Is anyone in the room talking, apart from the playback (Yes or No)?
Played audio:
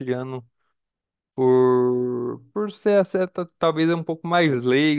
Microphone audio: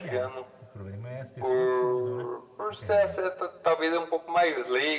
Yes